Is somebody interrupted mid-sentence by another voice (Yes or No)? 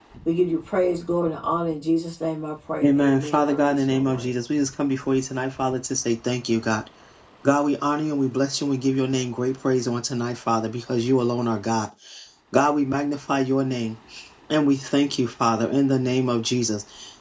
Yes